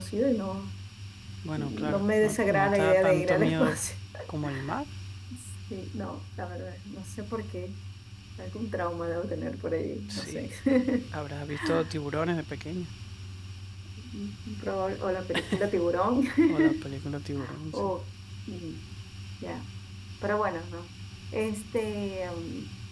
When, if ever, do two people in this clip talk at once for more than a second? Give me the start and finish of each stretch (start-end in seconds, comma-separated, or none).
1.6-3.8